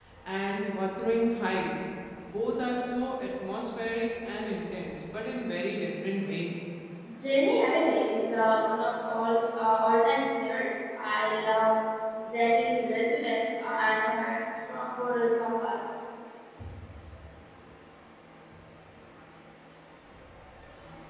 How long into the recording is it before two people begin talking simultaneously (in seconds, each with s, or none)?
none